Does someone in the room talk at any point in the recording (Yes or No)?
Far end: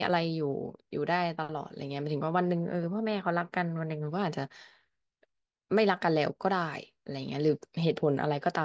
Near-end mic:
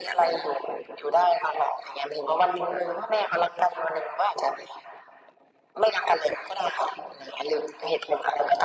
No